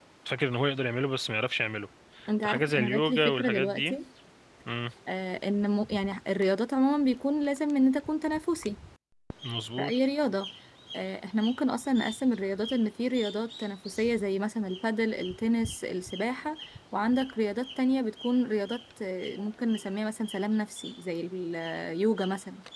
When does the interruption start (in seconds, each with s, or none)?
2.4 s